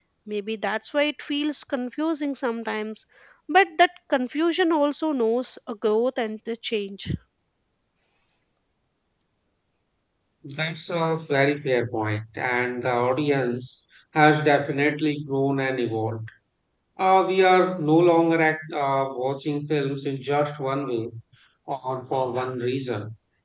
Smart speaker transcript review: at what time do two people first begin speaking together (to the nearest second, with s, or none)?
none